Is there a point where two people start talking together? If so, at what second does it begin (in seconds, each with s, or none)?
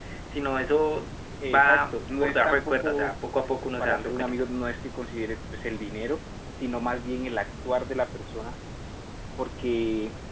1.5 s